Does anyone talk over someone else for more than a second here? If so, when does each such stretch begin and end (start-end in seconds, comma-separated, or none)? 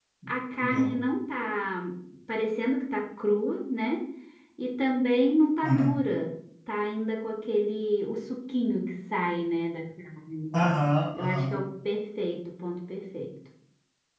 none